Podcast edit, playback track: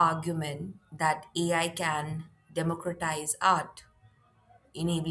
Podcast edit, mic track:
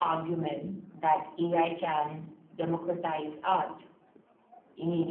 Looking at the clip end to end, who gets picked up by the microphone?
echo only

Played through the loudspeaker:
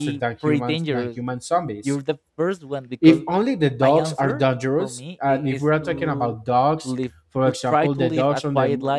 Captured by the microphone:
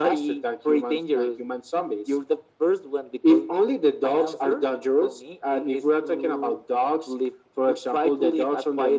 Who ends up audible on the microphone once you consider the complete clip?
echo only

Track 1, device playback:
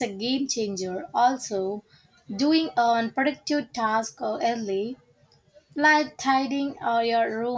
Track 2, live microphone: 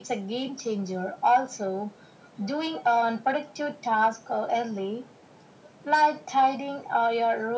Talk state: echo only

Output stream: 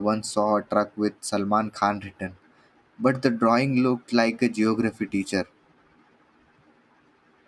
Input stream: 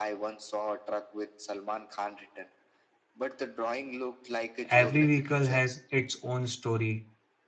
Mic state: both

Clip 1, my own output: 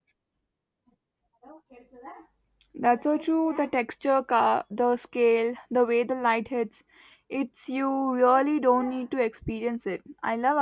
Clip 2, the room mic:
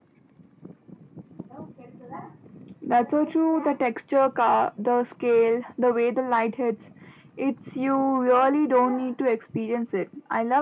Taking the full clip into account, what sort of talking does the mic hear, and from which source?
echo only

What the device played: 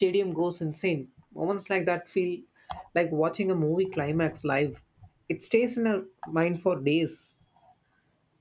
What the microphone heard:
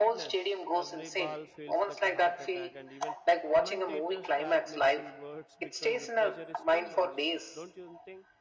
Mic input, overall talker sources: both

